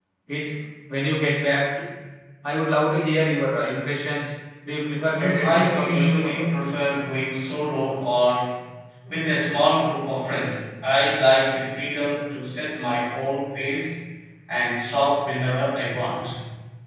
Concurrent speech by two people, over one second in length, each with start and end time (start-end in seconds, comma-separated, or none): 5.1-6.5